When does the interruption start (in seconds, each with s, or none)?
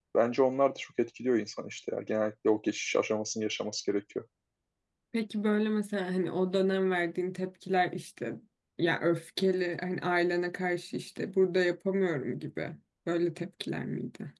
none